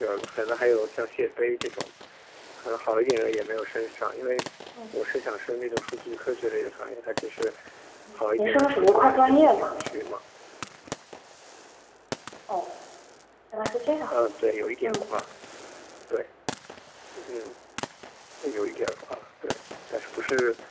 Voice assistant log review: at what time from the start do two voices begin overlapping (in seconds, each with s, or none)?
8.4 s